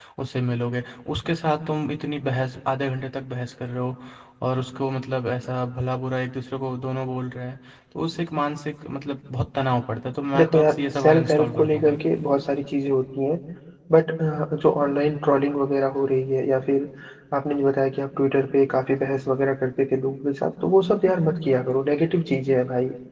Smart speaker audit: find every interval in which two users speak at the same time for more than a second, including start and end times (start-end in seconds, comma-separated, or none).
10.4-12.0